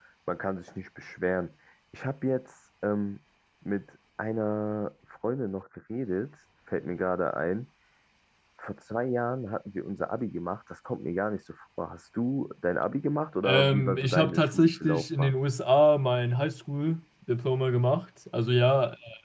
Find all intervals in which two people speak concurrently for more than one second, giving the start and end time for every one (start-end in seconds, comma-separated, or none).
13.4-15.3